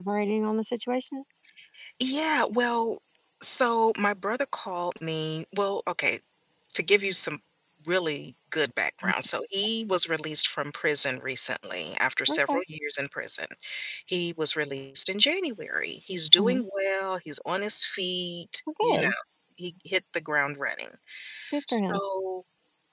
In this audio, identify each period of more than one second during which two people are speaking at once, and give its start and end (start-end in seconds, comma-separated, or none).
none